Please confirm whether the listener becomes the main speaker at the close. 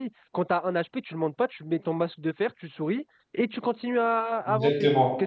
Yes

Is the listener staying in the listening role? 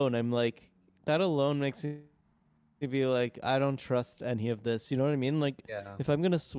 Yes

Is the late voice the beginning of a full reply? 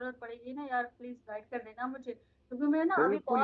No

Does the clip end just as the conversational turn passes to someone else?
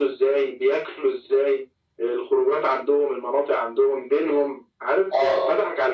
No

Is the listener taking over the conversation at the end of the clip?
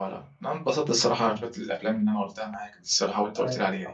Yes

